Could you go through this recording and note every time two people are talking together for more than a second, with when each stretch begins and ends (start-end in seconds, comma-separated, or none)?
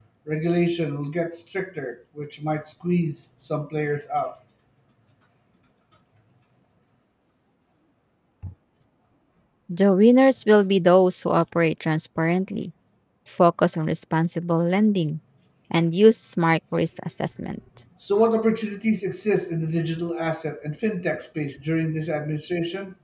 none